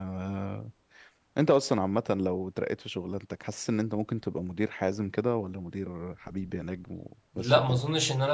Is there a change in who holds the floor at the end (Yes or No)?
Yes